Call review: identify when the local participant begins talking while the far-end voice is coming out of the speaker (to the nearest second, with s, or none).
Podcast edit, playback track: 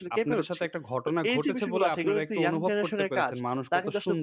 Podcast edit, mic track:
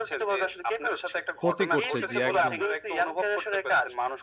1 s